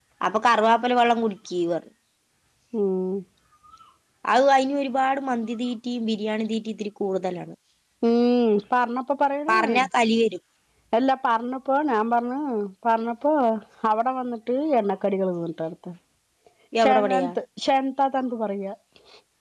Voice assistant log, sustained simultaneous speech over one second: none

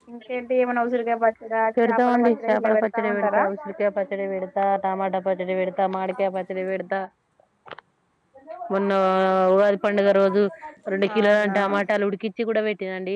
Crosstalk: present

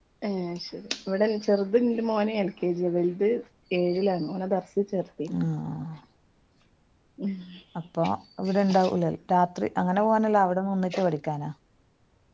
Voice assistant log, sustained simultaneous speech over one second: none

